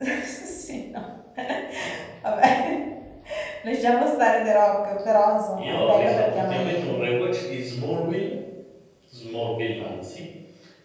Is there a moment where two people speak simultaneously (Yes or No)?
Yes